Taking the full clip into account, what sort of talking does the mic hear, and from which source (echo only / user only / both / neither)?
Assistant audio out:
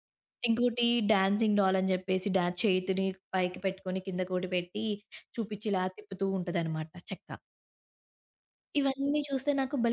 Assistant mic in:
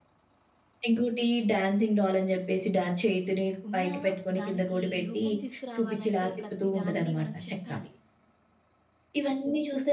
both